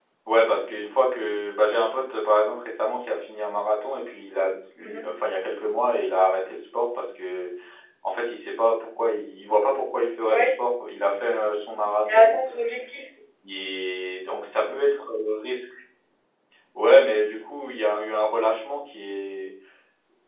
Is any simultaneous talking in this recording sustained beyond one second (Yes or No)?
No